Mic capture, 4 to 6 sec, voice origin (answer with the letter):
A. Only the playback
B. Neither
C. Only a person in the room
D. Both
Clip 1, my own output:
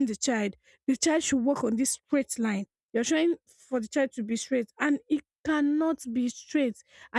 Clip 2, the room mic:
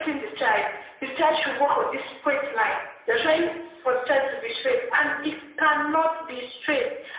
A